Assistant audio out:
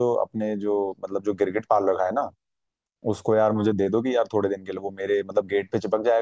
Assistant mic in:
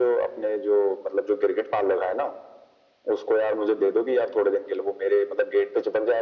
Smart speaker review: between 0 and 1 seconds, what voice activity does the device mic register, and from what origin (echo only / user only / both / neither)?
echo only